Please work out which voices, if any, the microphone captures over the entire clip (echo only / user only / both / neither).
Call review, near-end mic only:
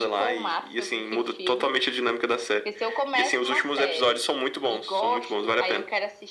echo only